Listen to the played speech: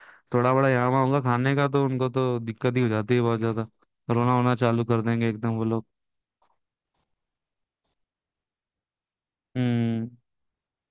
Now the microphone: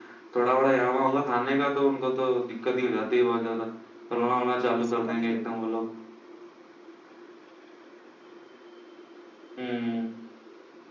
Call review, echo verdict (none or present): present